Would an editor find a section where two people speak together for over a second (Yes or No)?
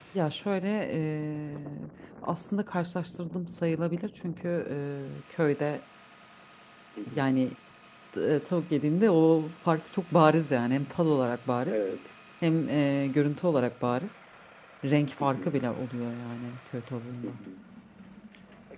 No